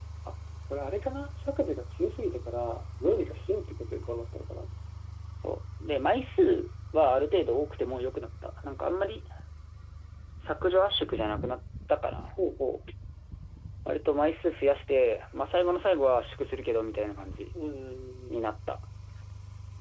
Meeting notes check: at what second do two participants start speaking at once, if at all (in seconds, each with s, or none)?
none